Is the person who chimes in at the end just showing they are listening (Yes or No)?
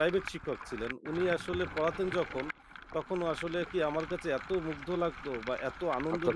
Yes